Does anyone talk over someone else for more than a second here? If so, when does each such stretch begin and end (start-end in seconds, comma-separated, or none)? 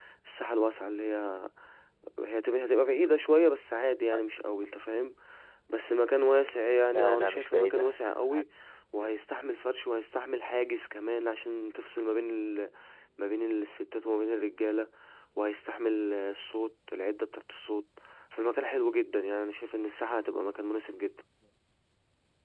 6.9-8.4